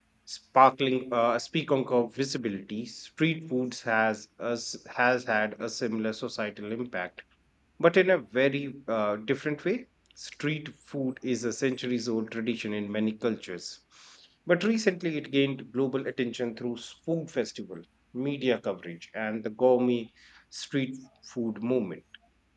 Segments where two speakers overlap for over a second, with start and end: none

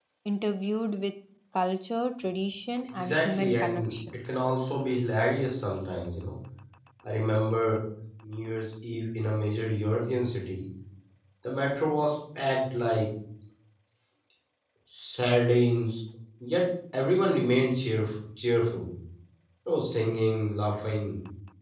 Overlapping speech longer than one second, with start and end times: 3.0-4.2

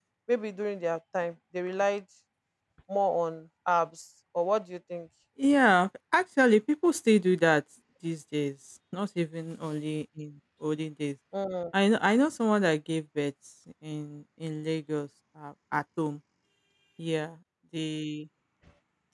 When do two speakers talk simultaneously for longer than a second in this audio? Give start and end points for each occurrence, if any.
none

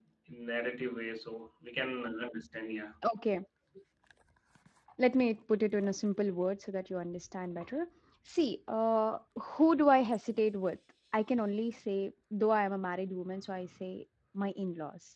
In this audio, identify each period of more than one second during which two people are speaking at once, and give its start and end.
none

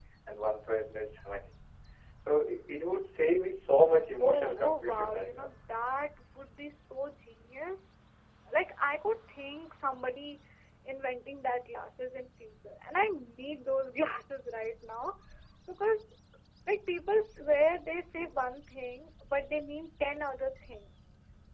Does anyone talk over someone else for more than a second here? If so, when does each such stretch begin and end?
4.2-5.5

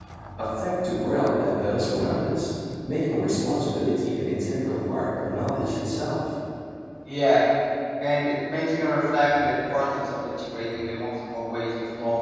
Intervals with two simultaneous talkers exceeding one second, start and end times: none

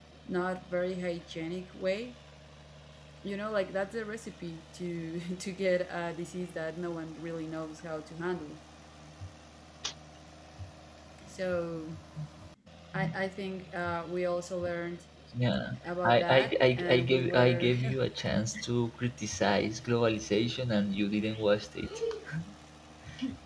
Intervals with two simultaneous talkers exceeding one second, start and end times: 16.0-17.7

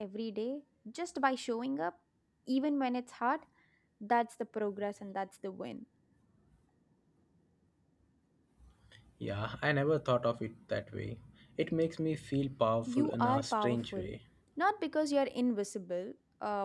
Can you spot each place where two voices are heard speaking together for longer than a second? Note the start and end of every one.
12.9-14.1

